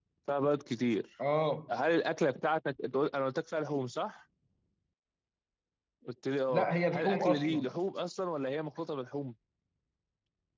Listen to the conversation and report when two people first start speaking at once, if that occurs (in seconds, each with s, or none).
6.5 s